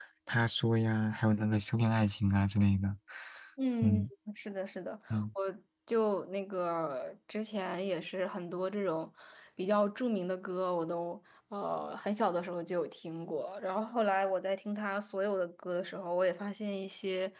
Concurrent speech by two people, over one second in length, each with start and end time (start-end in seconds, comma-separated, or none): none